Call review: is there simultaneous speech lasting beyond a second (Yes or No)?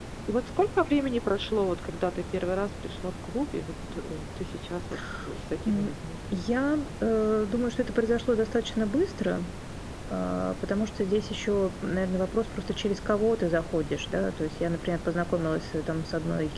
No